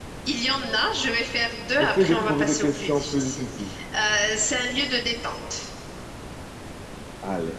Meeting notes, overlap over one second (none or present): present